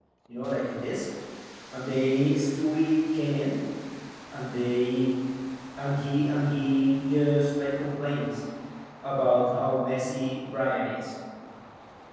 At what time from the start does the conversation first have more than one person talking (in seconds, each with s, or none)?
none